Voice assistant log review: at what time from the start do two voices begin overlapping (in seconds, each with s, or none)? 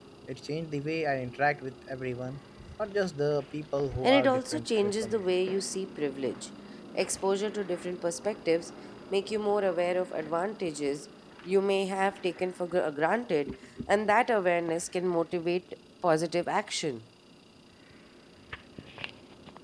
4.0 s